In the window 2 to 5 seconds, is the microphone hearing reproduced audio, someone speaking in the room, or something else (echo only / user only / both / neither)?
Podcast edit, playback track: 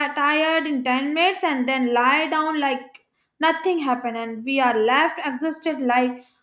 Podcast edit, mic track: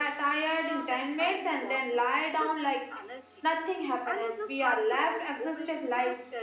both